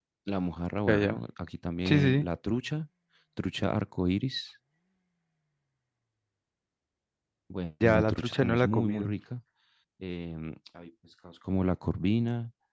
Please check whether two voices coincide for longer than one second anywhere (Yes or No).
Yes